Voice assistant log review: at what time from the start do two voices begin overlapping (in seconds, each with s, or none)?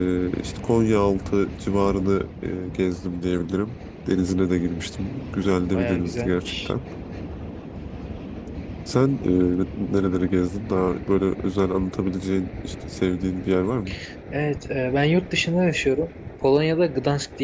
5.4 s